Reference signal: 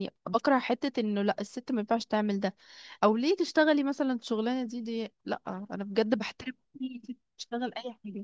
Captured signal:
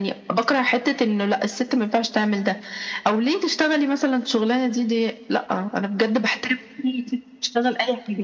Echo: present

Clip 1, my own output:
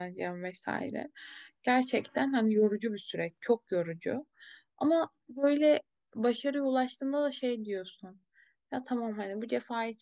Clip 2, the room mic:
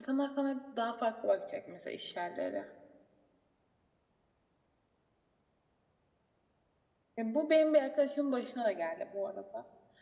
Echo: none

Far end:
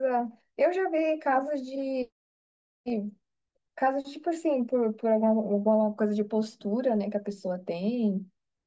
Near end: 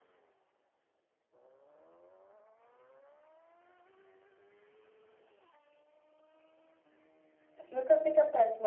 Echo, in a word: none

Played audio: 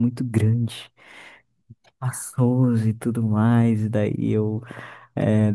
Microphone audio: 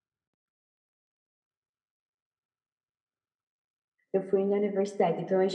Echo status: none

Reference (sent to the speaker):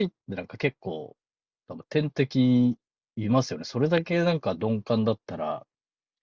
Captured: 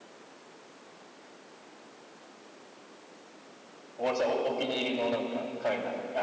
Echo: none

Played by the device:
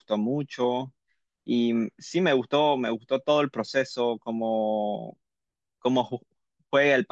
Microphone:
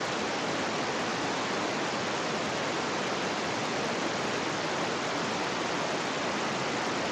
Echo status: none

